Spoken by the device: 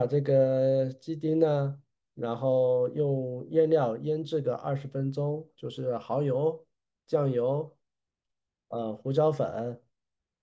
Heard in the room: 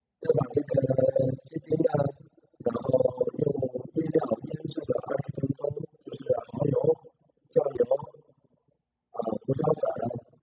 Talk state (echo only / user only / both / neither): echo only